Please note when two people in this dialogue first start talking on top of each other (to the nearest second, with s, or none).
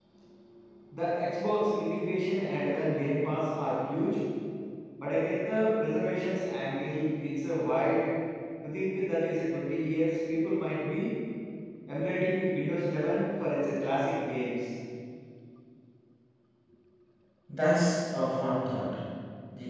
none